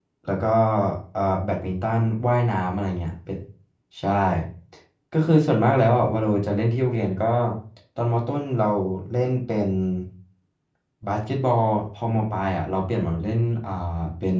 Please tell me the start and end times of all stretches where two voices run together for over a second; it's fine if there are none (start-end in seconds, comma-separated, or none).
none